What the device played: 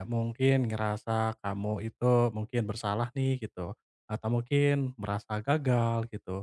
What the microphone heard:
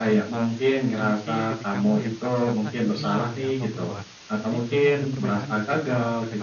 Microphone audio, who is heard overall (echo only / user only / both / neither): both